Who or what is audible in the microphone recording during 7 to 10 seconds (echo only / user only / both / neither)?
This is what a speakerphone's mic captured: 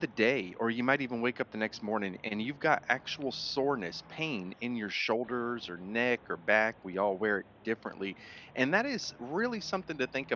user only